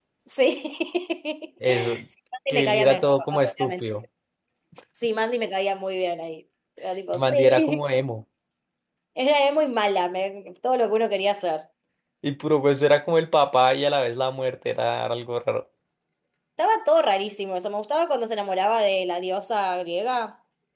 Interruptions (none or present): present